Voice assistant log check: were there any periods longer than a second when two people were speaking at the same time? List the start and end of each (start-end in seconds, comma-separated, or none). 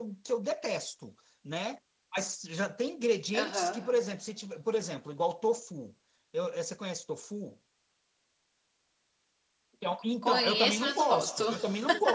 10.2-11.5